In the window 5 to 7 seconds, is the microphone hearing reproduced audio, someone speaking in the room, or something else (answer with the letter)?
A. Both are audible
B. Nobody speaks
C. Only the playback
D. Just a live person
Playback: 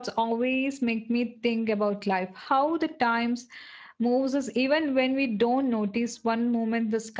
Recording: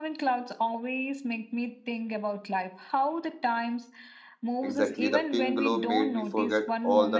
A